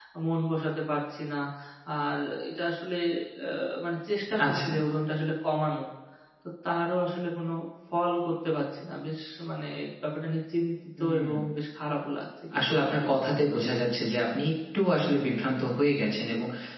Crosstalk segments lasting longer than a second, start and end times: 12.6-13.9

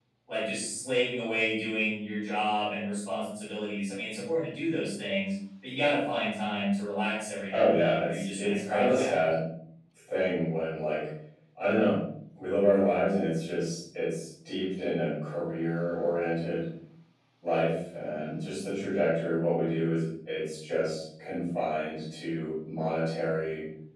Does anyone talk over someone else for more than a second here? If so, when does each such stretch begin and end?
7.5-9.2

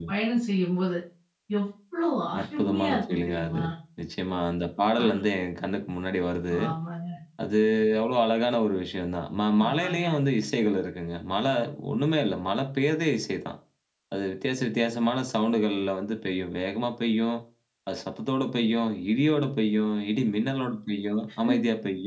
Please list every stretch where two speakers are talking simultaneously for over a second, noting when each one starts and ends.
2.4-3.6

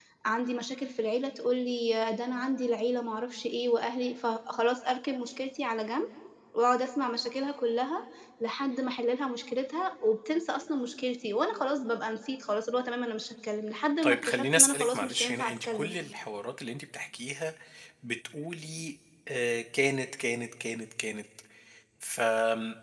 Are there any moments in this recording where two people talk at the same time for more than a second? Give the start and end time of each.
14.0-15.9

